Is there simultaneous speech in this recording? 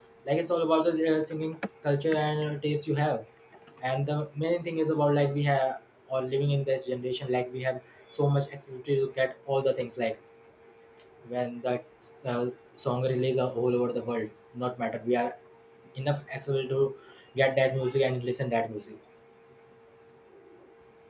No

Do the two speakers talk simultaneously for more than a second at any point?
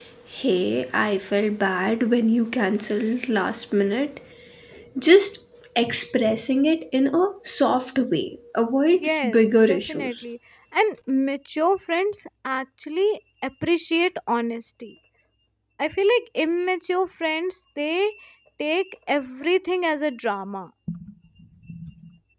Yes, from 8.9 s

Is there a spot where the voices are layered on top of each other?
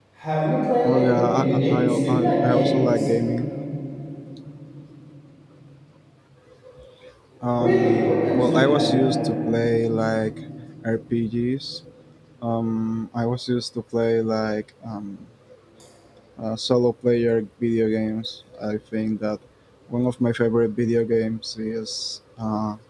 Yes, from 0.8 s

